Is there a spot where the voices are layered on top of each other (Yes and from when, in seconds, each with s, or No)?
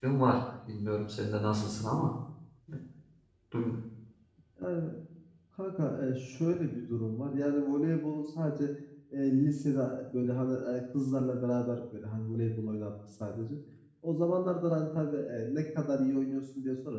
No